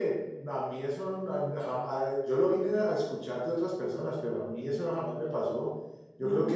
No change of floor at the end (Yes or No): Yes